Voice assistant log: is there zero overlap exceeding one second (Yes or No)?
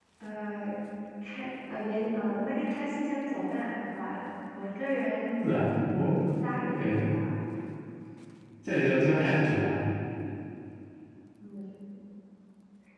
Yes